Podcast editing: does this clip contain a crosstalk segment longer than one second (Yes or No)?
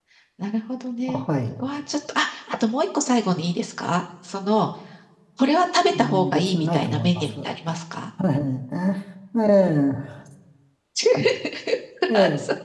Yes